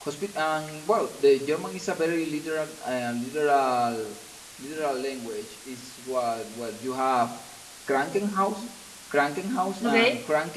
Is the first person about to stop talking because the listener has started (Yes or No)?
No